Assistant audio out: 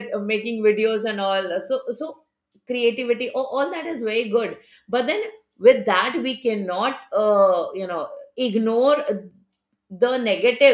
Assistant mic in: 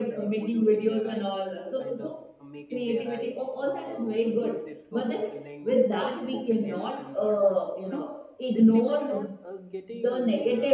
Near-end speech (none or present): present